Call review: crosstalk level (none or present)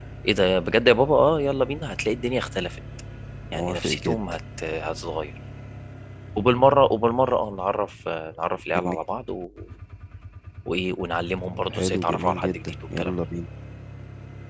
present